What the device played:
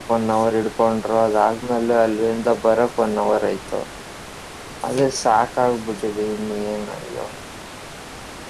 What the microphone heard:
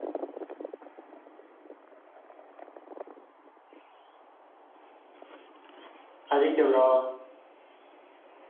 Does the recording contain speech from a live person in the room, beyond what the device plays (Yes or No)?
Yes